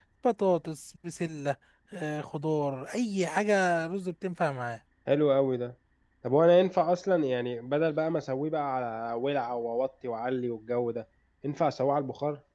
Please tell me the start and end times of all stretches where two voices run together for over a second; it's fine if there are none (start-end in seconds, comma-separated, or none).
none